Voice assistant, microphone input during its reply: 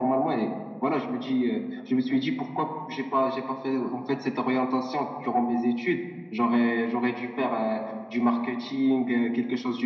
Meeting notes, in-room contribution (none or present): none